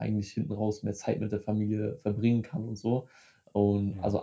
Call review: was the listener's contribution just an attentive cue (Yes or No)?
Yes